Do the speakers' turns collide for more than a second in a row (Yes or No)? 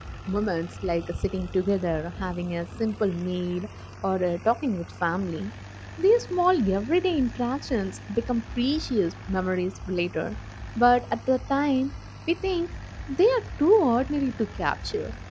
No